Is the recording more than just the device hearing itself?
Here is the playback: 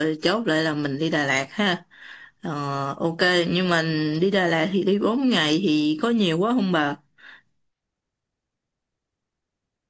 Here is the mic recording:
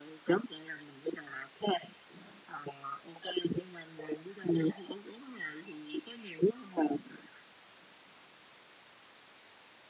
No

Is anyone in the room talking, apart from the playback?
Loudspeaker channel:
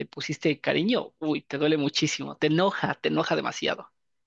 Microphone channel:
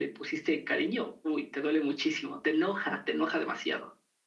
No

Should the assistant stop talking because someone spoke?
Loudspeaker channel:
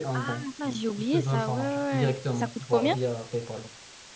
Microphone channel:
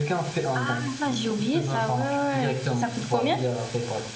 No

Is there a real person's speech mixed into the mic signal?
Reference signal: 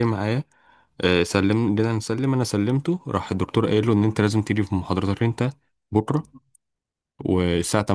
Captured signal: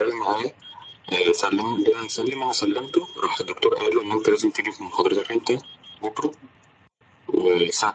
No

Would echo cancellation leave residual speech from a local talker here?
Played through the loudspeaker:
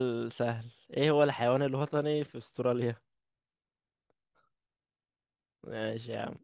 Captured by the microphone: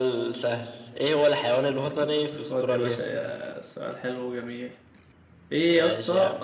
Yes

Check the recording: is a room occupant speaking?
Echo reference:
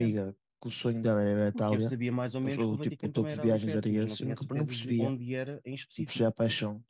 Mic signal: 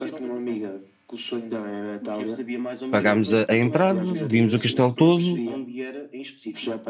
Yes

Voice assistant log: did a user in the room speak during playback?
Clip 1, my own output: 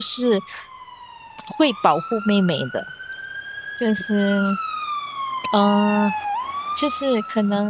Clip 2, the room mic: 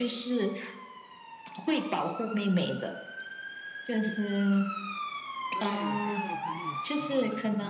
Yes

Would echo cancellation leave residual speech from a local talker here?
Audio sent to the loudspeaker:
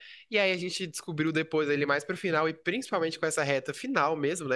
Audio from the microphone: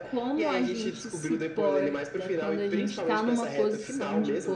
Yes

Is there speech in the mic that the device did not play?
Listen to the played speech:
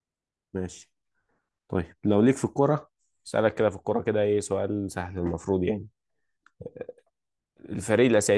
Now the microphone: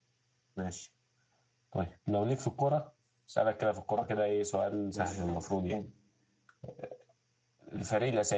Yes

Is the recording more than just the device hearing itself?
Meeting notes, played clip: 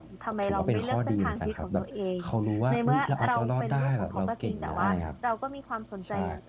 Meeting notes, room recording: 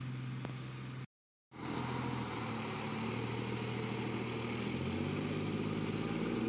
No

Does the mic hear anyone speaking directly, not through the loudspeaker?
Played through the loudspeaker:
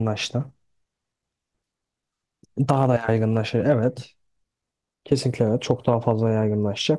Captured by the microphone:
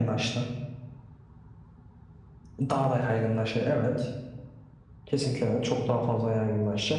No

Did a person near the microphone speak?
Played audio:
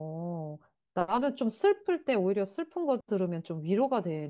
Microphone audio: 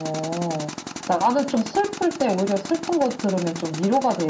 No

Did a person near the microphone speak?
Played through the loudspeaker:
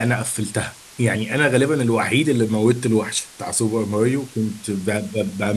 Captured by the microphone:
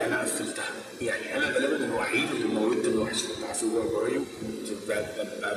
No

